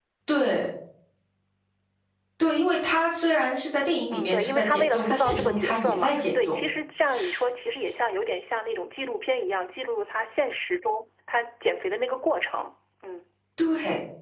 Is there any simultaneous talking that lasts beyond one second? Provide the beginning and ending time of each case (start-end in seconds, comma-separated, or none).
4.1-6.6